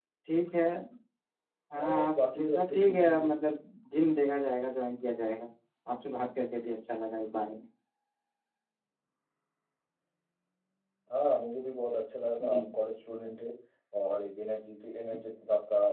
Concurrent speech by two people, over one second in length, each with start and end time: 1.8-3.3

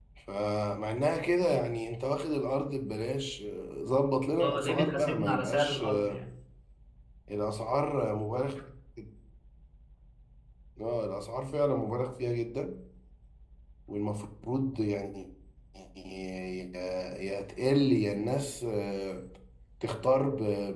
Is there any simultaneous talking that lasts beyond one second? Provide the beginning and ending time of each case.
4.4-6.2

